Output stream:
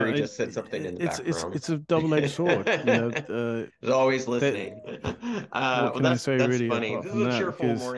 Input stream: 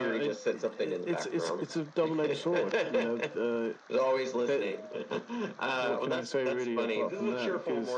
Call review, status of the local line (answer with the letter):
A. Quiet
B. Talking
A